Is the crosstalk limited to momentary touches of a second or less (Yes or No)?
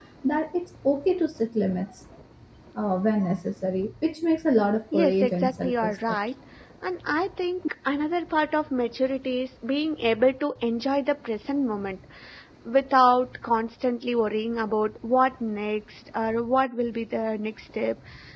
No